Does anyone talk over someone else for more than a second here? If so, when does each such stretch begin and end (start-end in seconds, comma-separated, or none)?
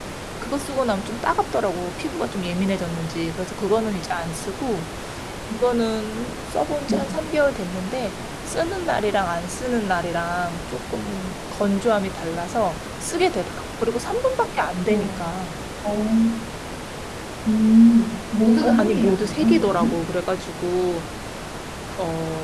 18.6-20.0